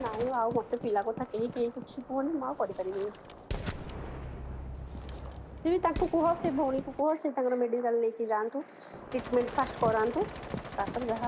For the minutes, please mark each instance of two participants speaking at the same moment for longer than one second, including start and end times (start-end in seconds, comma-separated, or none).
none